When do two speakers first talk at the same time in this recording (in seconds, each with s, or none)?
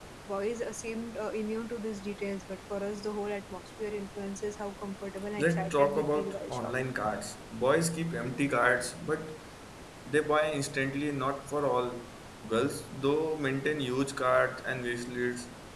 5.4 s